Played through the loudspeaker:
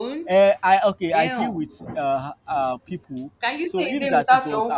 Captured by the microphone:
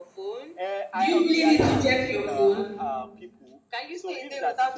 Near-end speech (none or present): present